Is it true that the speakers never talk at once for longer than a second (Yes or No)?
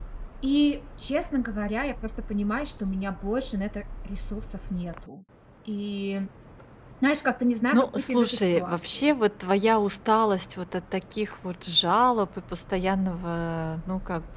No